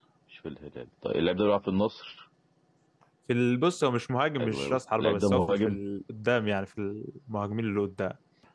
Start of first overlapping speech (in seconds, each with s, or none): 4.4 s